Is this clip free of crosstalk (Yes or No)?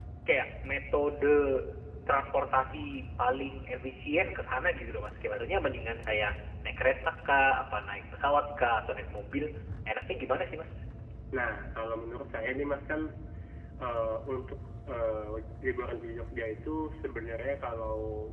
Yes